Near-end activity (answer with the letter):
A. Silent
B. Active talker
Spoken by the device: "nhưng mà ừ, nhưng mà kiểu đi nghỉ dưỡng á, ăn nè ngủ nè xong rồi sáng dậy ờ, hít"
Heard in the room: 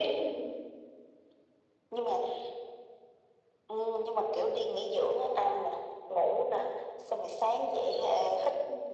A